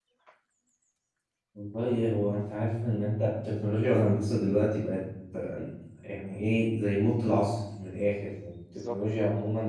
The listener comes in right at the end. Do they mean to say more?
No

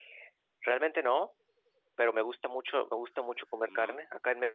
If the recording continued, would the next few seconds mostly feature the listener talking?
No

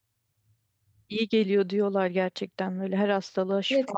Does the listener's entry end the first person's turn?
Yes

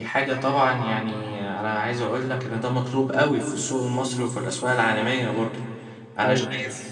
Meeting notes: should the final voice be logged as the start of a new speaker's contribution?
No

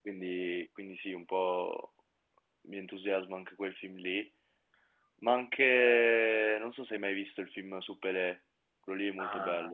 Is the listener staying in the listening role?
No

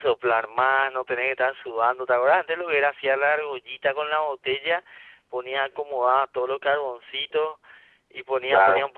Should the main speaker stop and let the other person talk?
No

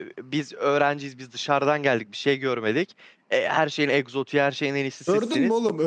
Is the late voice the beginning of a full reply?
Yes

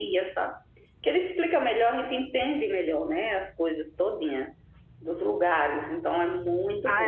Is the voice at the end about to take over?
Yes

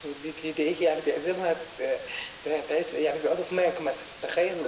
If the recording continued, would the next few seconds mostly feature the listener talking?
Yes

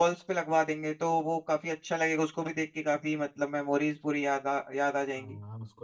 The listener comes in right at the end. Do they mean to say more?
Yes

